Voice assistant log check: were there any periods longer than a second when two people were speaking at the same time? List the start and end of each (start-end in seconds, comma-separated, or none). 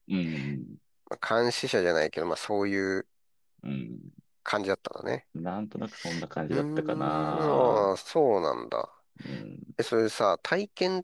6.5-7.9